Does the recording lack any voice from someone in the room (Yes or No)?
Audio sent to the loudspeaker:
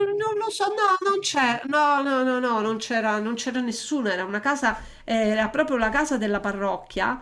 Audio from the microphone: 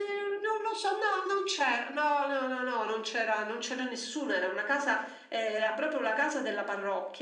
Yes